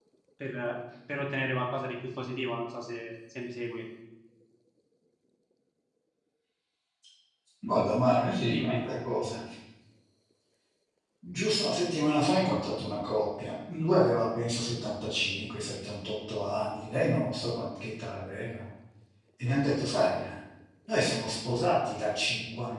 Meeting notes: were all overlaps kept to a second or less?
Yes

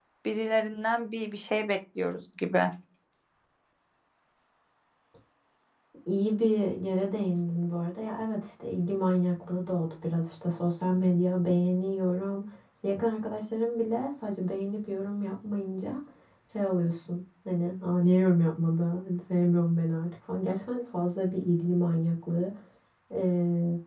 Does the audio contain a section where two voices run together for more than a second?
No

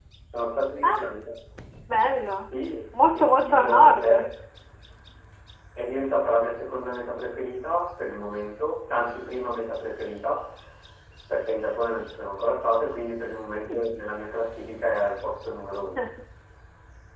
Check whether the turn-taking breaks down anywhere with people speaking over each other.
Yes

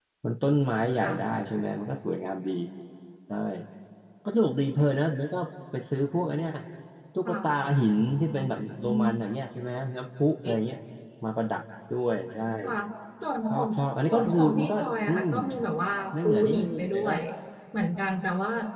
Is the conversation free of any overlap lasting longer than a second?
No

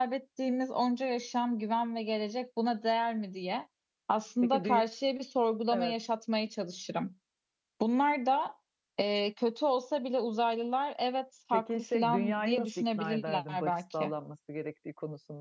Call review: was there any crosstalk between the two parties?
Yes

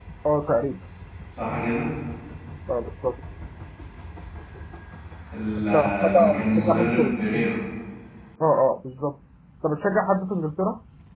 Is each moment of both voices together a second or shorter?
No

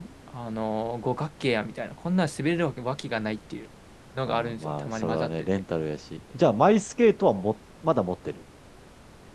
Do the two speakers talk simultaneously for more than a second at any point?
Yes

